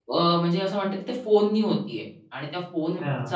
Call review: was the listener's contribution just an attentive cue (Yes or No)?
Yes